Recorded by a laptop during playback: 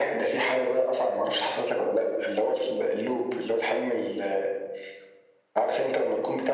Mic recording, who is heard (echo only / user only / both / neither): echo only